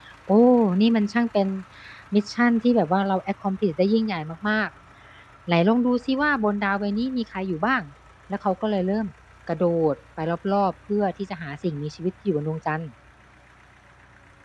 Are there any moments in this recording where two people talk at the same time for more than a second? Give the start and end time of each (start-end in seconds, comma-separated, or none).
none